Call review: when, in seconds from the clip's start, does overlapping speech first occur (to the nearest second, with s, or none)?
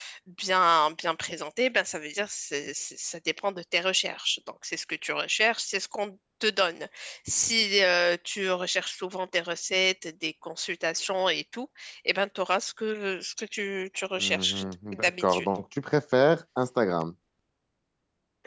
14 s